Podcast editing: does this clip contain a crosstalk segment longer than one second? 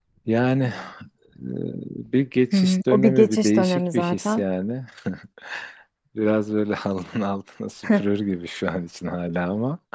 Yes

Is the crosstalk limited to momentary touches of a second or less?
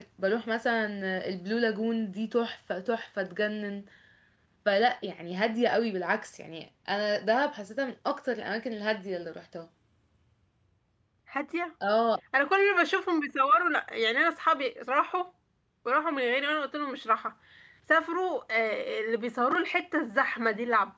Yes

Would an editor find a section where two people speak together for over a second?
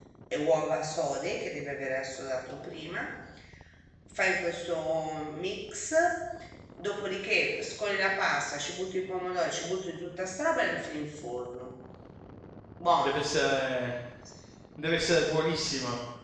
No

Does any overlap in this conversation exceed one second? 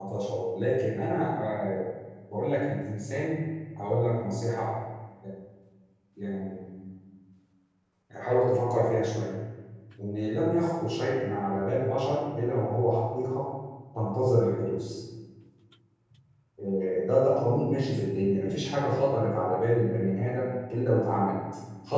No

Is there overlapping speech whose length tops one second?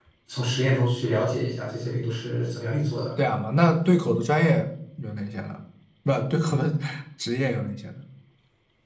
No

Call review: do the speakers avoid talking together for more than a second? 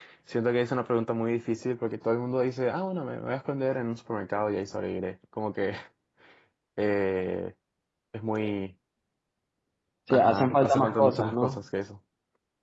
No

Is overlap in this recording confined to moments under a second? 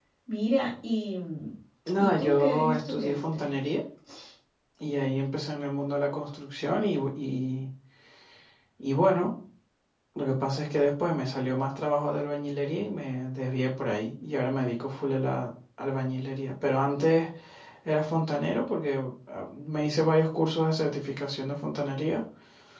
No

